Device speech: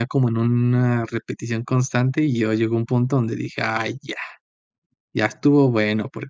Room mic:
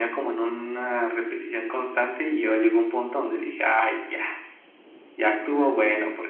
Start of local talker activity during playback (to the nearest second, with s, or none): none